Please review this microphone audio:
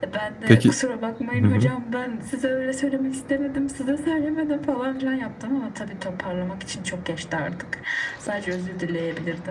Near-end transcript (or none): Peki. Hı hı.